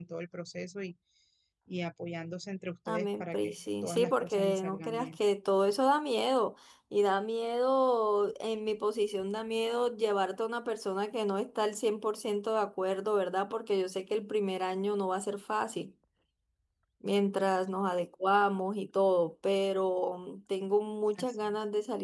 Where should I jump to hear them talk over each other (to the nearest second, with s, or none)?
3 s